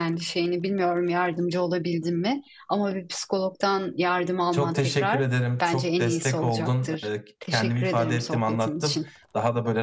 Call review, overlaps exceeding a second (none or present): present